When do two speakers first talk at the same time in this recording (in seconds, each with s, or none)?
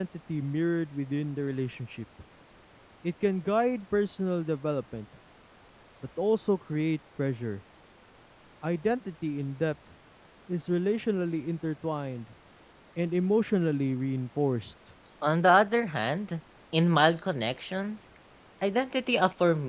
none